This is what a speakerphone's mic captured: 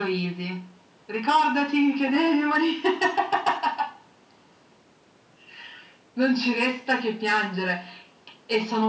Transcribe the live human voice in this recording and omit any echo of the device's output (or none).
none